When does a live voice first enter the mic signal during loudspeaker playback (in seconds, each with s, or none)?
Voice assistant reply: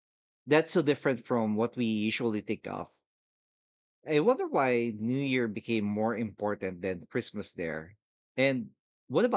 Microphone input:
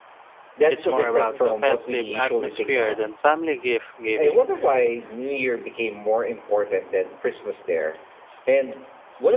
0.7 s